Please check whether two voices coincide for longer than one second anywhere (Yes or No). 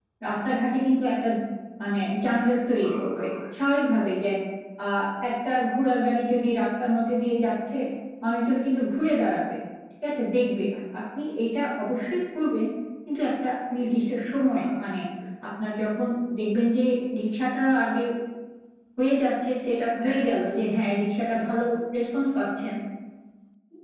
Yes